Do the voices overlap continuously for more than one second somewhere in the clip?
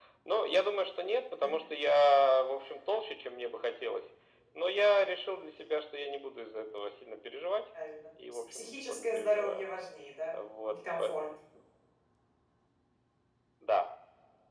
Yes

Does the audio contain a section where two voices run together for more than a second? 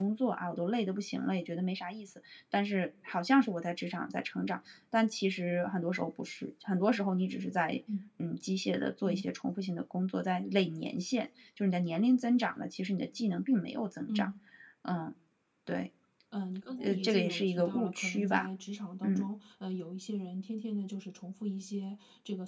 Yes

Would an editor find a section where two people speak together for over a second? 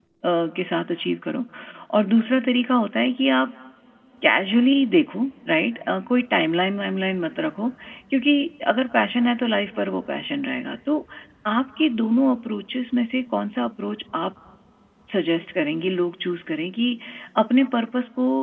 No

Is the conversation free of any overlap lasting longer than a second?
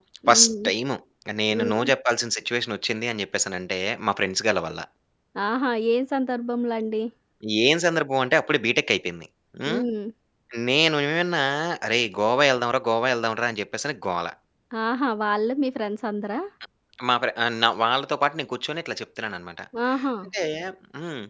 Yes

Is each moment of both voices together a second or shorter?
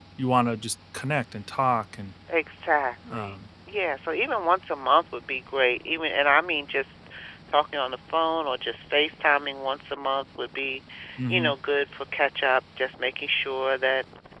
Yes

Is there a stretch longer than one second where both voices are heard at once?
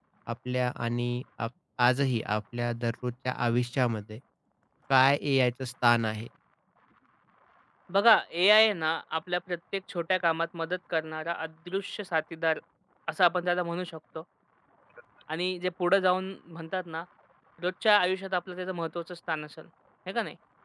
No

